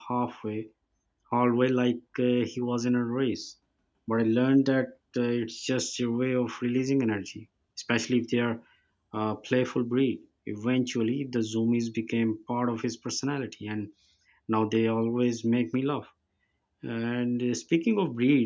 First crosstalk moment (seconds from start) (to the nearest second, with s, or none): none